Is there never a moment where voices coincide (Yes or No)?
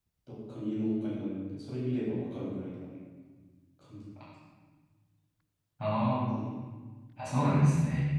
Yes